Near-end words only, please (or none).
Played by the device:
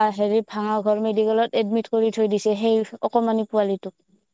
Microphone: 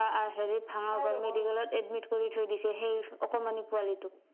খাই ৰব সি।